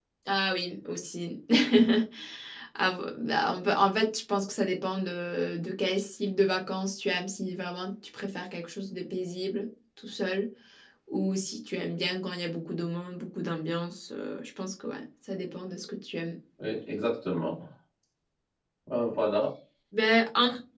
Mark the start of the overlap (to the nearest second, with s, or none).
none